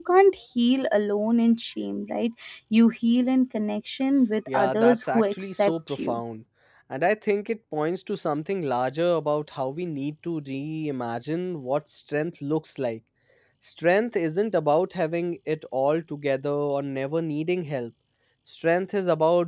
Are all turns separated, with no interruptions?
No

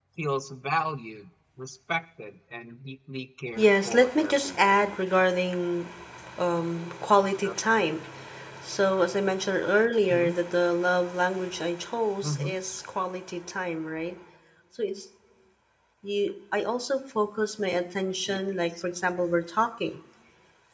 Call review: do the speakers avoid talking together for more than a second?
No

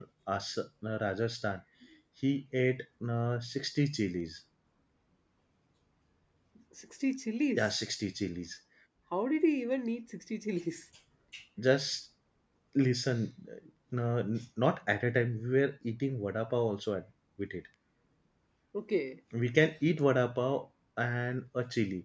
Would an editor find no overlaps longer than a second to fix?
Yes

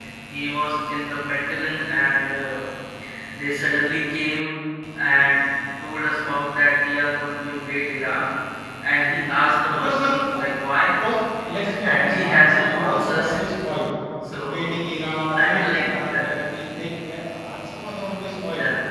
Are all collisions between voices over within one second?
No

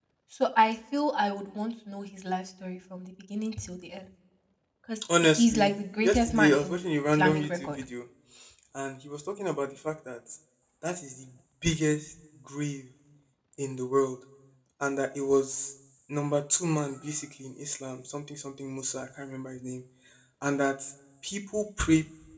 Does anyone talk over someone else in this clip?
Yes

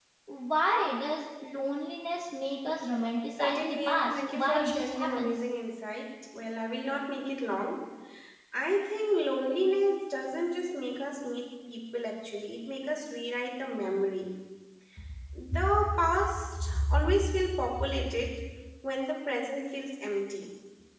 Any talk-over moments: Yes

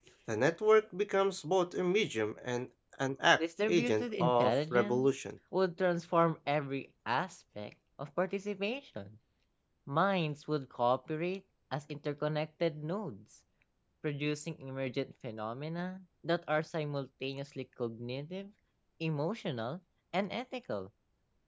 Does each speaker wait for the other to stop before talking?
No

